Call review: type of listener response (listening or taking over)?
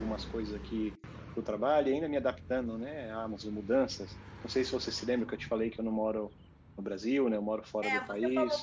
taking over